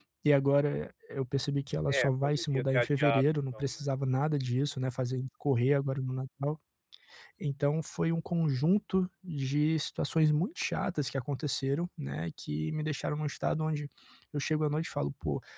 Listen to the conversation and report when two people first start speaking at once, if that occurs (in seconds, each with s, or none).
1.9 s